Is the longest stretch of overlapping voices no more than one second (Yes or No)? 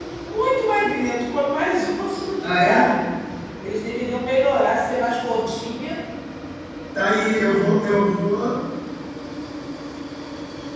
Yes